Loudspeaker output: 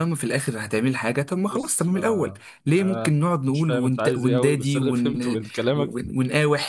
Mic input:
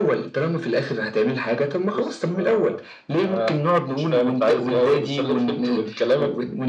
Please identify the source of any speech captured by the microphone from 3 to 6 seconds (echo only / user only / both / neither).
echo only